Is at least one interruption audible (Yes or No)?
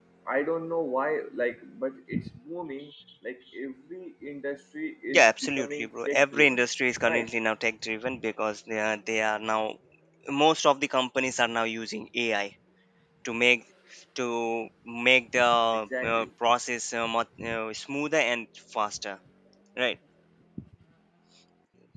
Yes